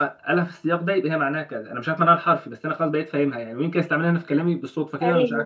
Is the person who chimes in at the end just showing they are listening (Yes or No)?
Yes